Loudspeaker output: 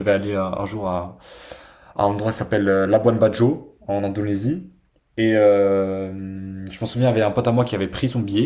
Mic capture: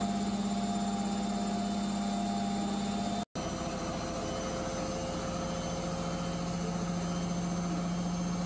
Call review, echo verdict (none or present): none